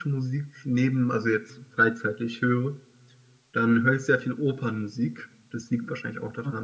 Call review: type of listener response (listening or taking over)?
listening